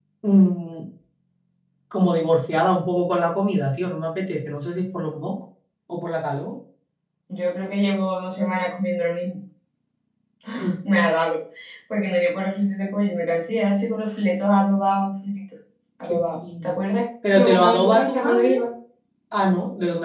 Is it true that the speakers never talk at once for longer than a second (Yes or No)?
No